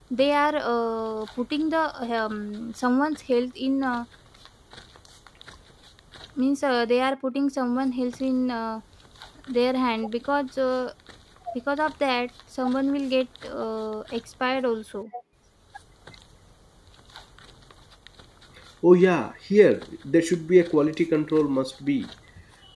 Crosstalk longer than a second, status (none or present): none